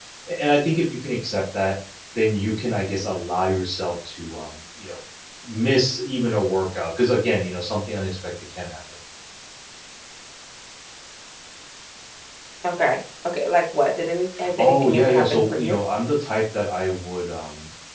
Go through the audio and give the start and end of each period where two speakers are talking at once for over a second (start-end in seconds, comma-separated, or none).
14.6-15.8